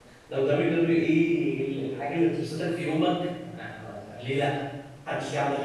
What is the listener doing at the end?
taking over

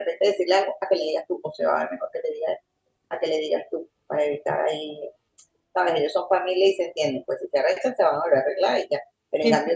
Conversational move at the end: listening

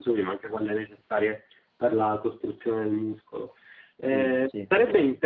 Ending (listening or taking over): listening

